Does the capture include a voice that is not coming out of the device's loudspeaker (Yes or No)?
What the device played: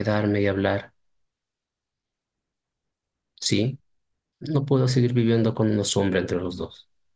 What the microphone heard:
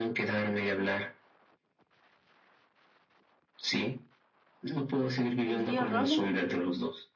Yes